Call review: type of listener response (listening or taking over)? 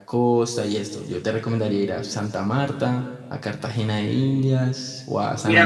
taking over